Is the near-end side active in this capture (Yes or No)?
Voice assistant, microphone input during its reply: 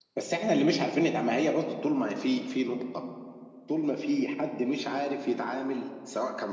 Yes